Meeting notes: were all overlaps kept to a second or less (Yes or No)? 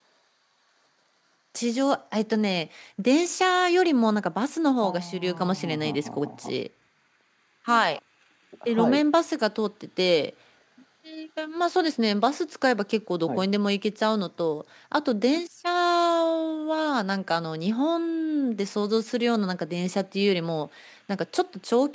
No